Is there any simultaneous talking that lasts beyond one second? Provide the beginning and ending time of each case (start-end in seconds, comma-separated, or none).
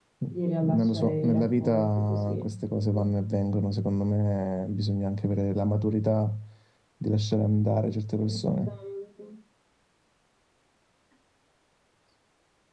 0.7-2.5